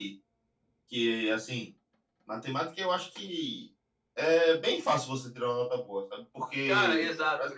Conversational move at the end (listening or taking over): taking over